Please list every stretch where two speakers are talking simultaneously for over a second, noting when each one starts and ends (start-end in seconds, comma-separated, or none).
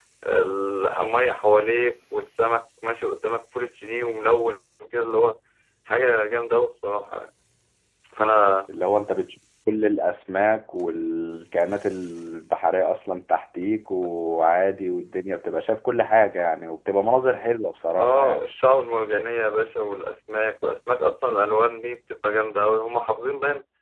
none